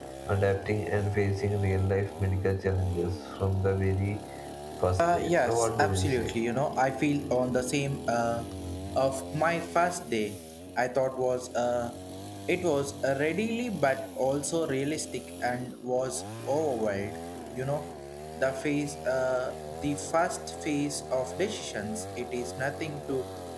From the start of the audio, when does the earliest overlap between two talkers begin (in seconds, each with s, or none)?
5.0 s